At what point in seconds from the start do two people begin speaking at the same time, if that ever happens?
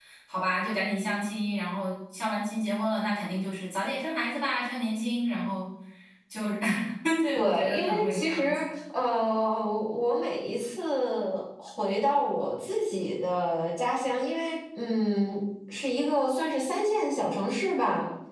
7.4 s

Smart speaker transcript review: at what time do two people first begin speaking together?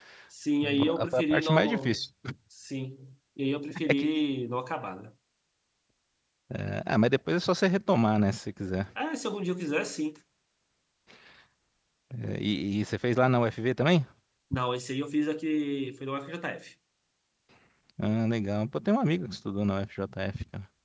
0.8 s

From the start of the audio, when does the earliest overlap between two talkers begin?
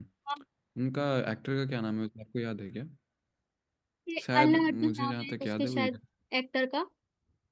4.2 s

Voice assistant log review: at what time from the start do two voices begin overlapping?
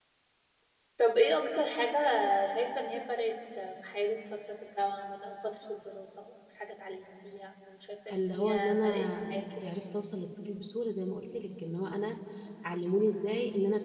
8.1 s

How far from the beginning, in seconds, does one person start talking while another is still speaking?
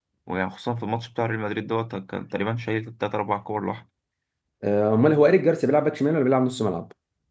none

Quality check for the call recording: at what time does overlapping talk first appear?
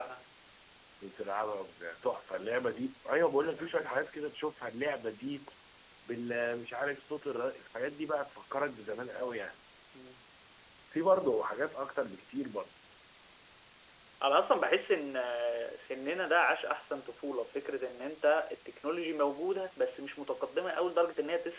none

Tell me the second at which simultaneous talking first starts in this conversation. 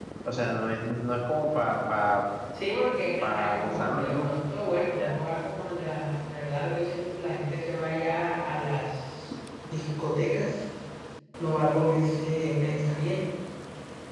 3.2 s

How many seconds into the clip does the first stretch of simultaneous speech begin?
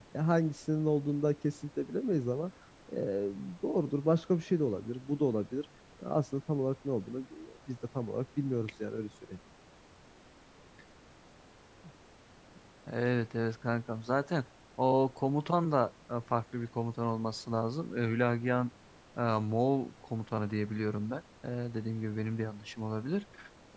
none

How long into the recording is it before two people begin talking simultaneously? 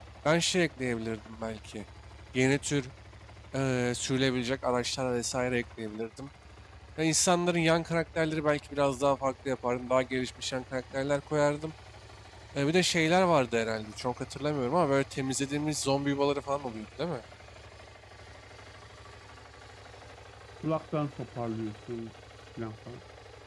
none

